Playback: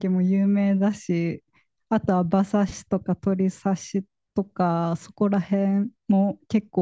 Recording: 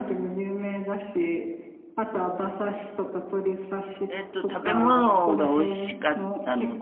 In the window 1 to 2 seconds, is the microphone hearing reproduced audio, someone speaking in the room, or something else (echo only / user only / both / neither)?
echo only